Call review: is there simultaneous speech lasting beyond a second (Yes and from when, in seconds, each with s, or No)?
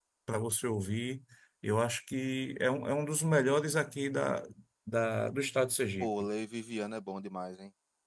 No